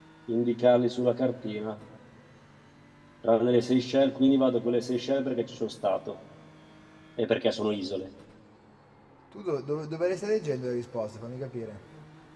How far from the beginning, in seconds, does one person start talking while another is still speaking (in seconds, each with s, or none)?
none